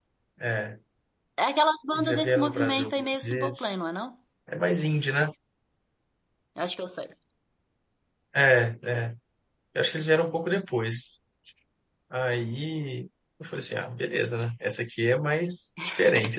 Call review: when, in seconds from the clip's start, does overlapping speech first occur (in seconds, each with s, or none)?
1.9 s